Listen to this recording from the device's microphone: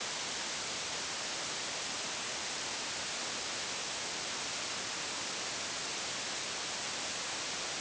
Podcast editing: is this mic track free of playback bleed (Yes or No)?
Yes